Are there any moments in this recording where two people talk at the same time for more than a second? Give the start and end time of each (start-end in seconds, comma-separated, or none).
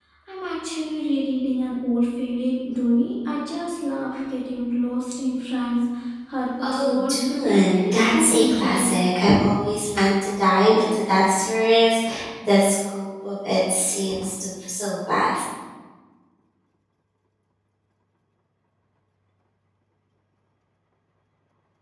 6.6-9.0